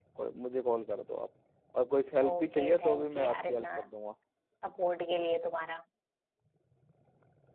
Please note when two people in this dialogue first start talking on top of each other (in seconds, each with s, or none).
2.3 s